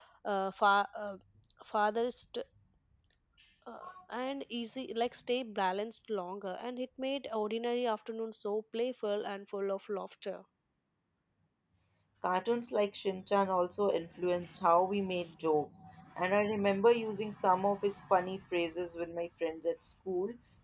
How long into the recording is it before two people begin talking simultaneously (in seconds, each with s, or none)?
none